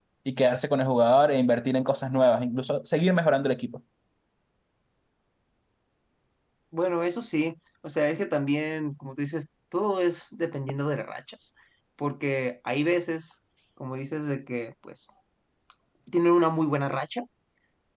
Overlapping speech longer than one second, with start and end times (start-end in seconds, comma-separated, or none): none